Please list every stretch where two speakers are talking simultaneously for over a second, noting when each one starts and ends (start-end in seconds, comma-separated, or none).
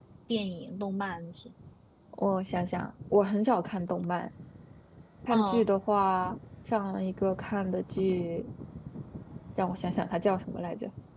none